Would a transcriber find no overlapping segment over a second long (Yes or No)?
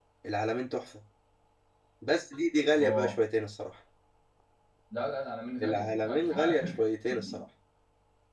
No